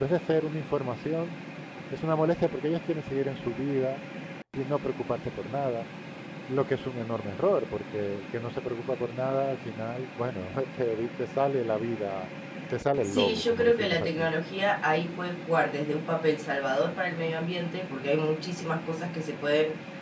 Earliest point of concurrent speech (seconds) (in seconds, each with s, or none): 13.0 s